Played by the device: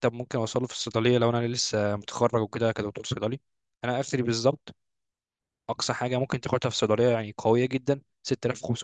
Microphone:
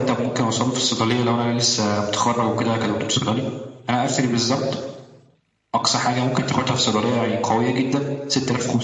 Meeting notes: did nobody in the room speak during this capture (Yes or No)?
Yes